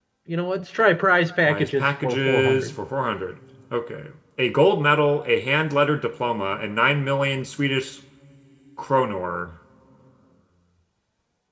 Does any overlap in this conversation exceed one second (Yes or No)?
Yes